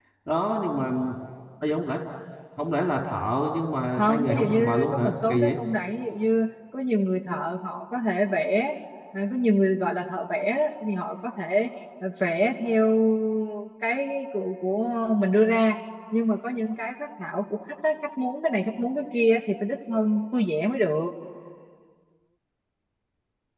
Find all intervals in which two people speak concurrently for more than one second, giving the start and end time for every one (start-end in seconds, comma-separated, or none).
4.0-5.6